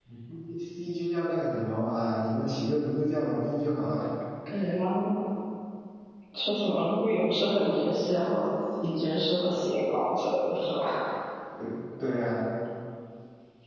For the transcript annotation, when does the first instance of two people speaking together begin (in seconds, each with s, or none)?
none